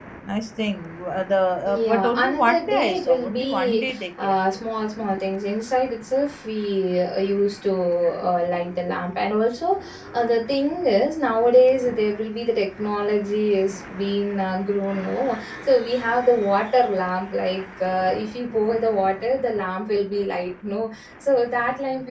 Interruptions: present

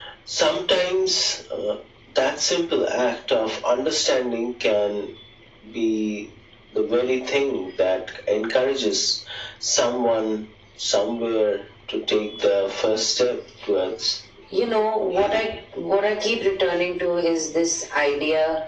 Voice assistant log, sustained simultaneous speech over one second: none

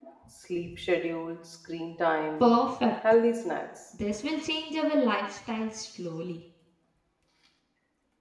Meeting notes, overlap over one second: none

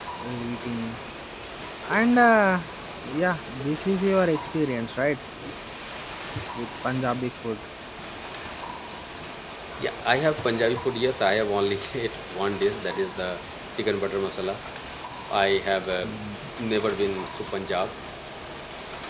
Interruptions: none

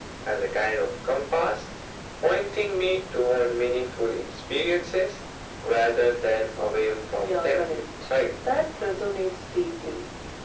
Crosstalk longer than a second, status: none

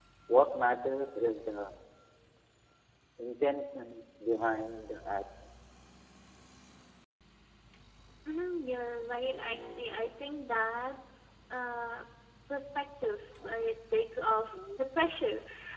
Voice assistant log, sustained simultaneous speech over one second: none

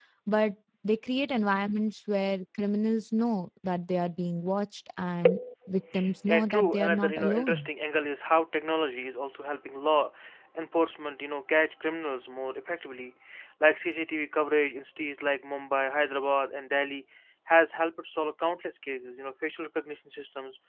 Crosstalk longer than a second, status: present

